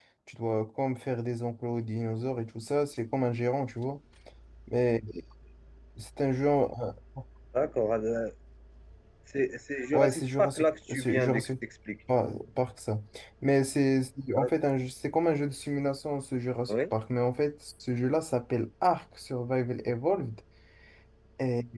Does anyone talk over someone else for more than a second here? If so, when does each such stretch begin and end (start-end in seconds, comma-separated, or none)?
9.9-11.5